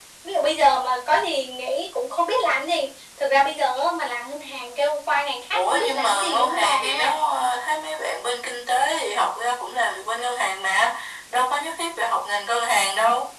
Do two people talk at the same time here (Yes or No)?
Yes